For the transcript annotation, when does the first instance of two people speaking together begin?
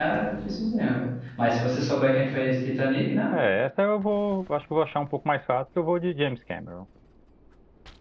none

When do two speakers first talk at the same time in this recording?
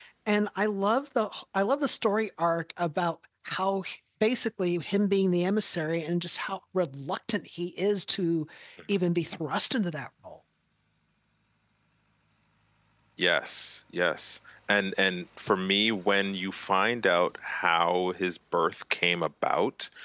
none

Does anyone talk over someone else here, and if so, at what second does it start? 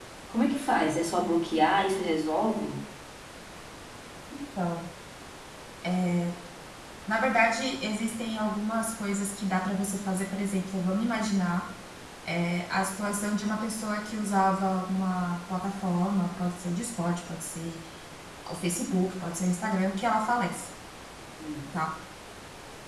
none

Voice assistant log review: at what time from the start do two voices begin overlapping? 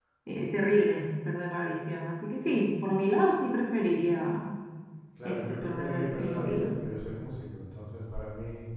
5.2 s

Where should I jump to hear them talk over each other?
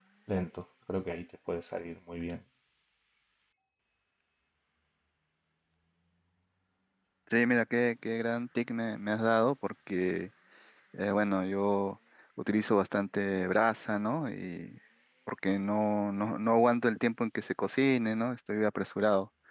none

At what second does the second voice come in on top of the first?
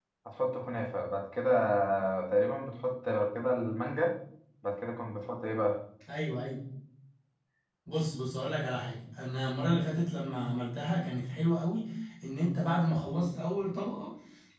none

